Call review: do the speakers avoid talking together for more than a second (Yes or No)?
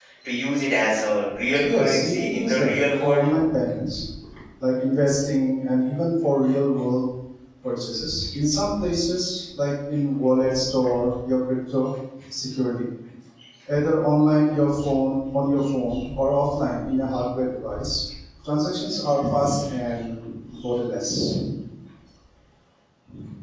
No